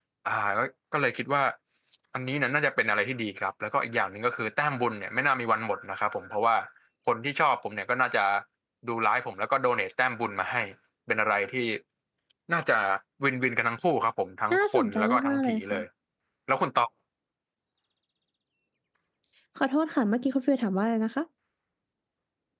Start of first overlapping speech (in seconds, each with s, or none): 14.5 s